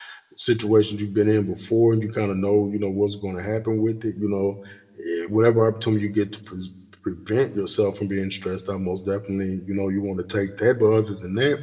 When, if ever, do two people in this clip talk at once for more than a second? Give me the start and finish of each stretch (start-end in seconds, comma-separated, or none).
none